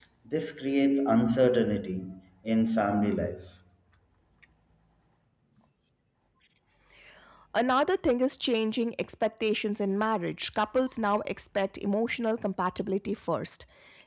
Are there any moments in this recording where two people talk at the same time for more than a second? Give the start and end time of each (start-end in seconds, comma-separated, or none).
none